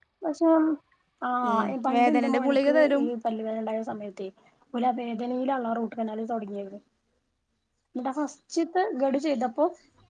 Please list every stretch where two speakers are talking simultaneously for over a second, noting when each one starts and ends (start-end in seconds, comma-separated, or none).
1.5-3.0